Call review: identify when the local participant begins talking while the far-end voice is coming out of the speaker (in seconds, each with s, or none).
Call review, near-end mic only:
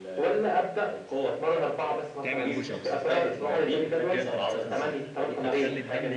2.2 s